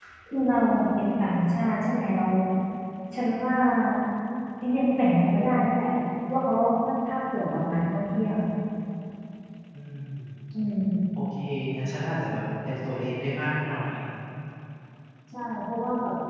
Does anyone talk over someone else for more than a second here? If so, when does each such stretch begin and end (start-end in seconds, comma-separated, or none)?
none